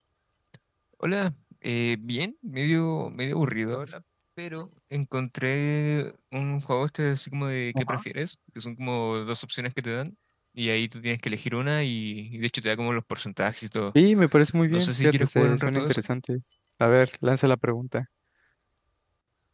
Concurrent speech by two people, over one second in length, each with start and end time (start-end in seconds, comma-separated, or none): 14.7-16.0